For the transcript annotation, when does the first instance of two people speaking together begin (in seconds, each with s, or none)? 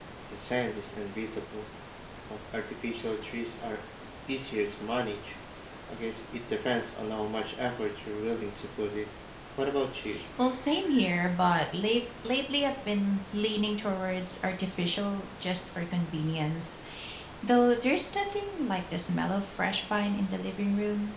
none